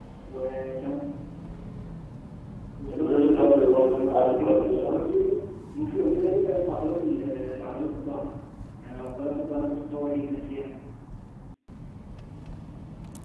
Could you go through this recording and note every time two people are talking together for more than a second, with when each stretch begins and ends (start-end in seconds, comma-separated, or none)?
2.9-4.9